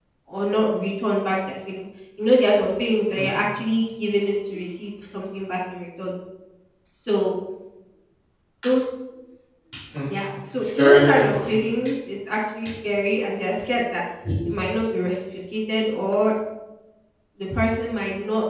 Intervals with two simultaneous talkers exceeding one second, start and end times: 10.6-11.8

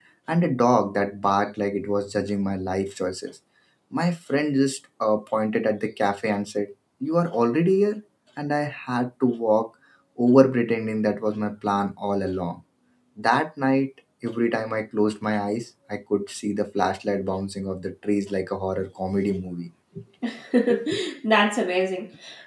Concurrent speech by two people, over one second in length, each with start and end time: none

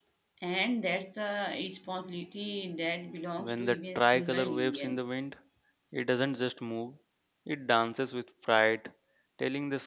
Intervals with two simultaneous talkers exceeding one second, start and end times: 3.4-5.0

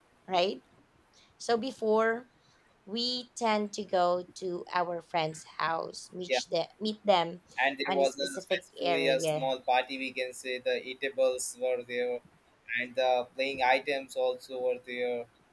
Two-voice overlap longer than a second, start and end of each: 7.9-9.5

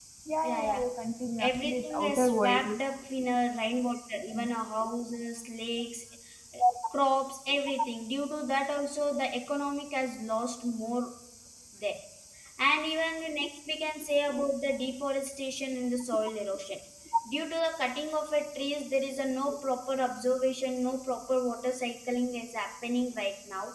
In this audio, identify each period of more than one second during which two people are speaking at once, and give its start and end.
1.4-2.8

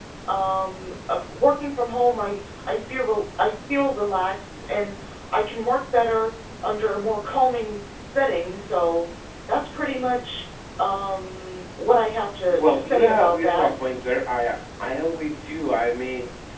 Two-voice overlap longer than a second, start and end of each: 12.5-13.7

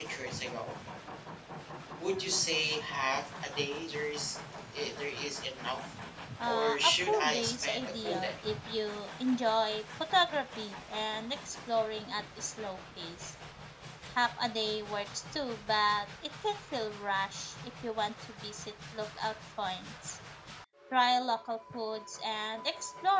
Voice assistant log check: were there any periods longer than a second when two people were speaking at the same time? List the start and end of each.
6.4-8.4

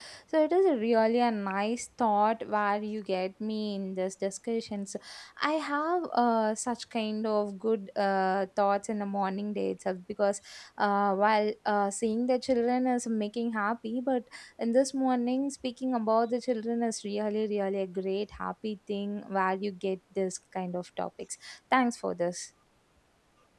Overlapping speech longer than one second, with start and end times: none

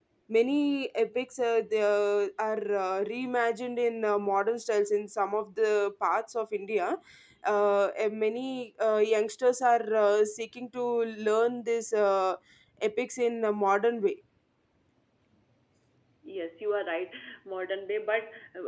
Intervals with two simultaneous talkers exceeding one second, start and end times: none

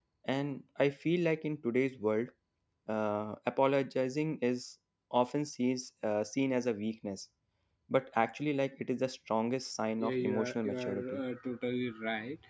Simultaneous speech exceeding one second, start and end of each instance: 10.0-11.2

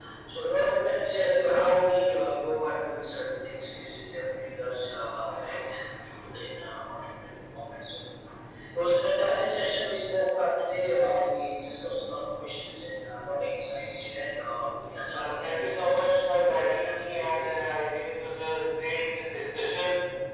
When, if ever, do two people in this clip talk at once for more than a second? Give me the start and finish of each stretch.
15.1-17.5

